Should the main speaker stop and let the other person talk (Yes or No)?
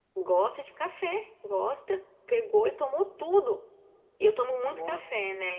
No